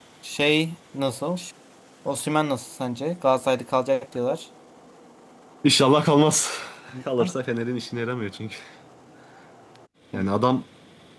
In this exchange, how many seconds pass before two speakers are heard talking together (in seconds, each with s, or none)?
none